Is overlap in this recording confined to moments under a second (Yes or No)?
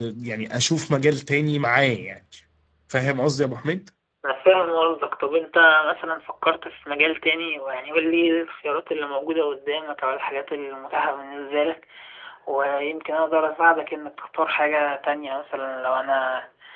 Yes